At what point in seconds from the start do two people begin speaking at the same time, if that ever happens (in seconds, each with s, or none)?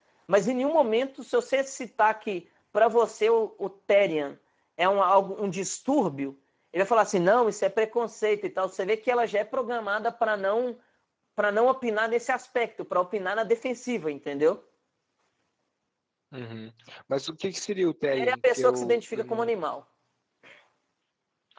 18.1 s